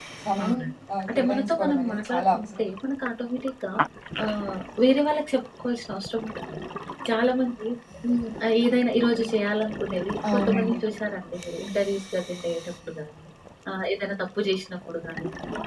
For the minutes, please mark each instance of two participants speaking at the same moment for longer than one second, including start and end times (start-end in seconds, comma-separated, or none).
1.1-2.7